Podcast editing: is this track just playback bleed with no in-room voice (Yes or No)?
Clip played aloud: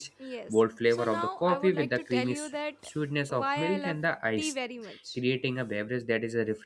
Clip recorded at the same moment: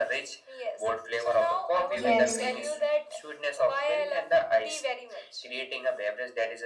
No